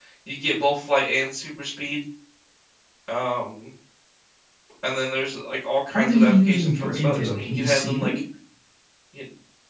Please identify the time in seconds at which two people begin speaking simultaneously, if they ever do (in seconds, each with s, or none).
5.9 s